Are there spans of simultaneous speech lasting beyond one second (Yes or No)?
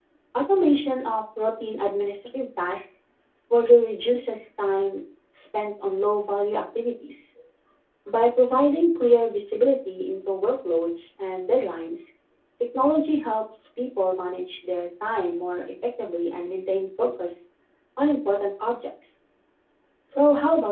No